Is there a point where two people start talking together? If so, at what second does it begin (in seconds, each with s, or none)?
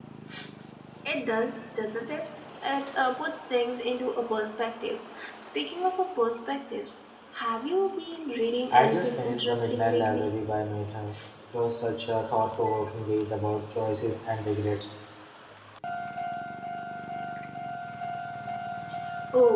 8.7 s